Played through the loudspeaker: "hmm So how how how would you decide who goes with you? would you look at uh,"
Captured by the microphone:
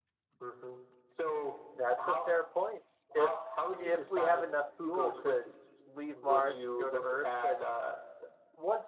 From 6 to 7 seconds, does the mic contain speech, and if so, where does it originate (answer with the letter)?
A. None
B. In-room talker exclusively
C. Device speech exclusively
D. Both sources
D